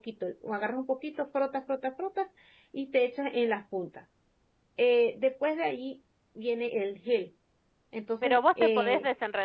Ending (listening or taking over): taking over